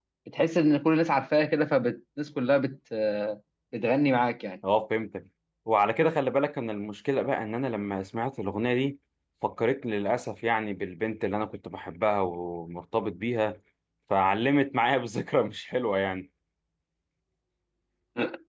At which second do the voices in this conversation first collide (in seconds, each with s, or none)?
none